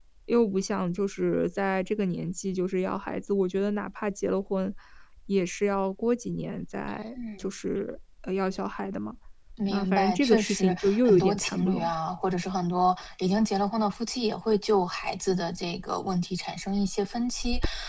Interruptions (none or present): present